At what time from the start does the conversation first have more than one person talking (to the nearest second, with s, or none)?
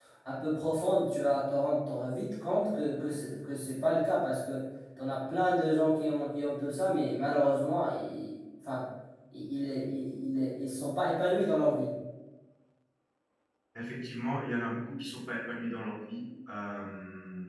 none